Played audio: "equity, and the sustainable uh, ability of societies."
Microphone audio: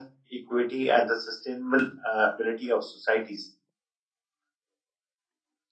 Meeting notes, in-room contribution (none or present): none